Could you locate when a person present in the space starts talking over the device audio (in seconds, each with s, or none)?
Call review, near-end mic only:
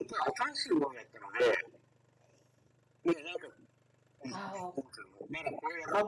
4.3 s